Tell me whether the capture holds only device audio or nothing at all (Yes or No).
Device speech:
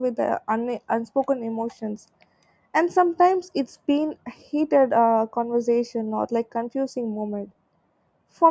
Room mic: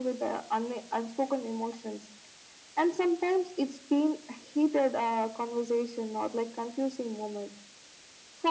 Yes